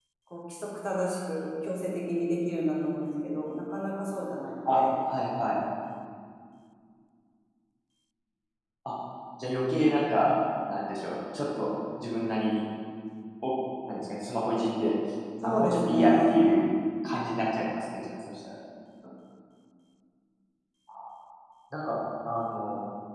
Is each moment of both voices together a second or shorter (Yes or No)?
No